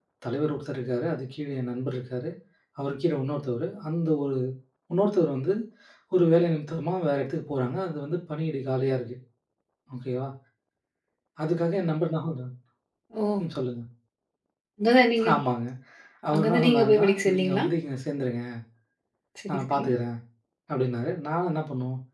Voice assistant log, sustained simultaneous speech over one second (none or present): present